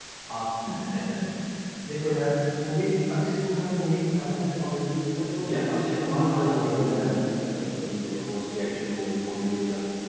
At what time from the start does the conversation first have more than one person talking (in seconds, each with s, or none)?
5.4 s